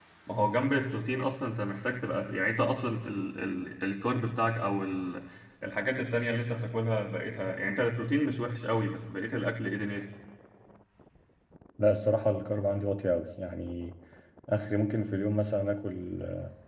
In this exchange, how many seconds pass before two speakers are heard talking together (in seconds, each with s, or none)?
none